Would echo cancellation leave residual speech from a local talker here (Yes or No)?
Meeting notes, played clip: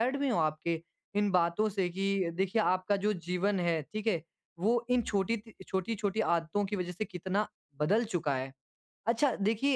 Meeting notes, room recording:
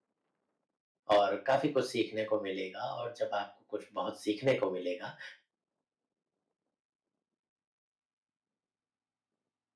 Yes